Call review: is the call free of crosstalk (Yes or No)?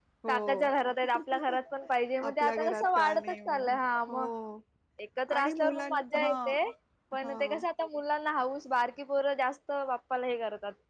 No